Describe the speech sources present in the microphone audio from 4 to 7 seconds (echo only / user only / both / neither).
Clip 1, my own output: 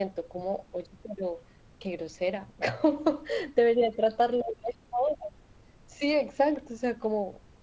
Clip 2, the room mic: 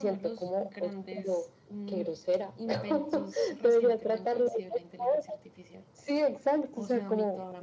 both